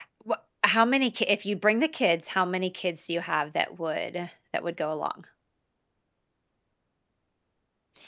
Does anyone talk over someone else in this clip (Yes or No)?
No